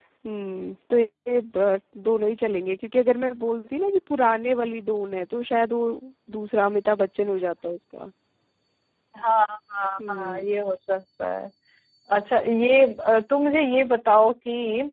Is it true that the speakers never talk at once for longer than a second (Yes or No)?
Yes